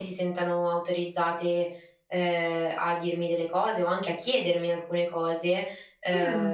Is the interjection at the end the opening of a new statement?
No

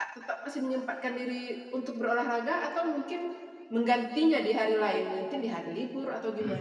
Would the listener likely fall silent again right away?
No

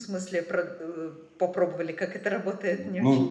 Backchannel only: No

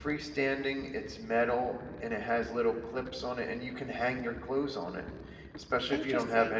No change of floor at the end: Yes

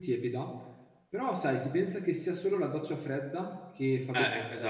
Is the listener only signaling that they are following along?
No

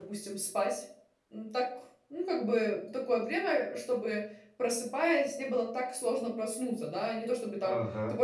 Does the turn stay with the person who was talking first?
Yes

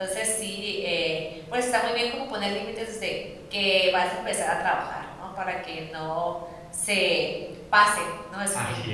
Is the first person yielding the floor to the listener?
Yes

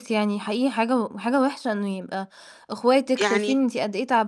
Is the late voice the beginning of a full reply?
No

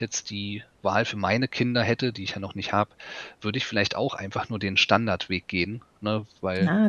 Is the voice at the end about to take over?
Yes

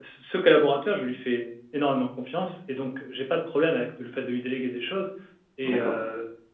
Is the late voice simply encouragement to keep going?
Yes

